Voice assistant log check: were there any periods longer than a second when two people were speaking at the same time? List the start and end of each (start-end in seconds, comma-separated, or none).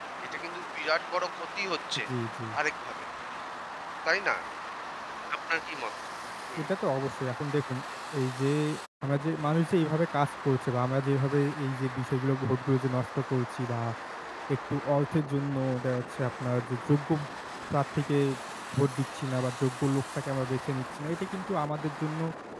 none